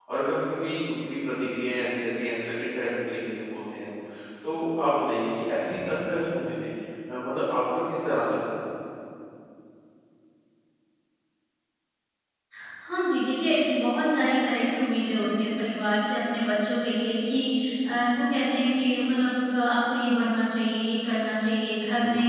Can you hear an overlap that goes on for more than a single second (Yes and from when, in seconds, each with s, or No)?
No